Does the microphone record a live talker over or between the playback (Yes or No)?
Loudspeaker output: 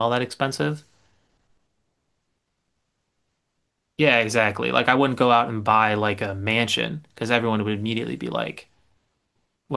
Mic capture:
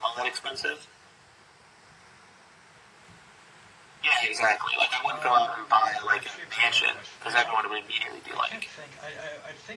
Yes